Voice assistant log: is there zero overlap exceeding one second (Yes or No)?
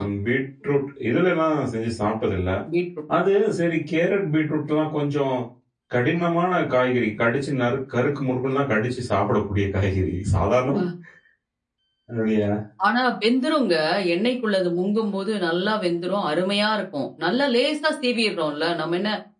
Yes